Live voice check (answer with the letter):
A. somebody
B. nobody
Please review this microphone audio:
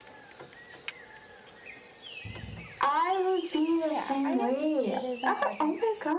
A